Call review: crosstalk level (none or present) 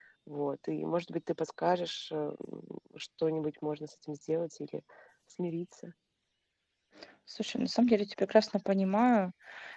none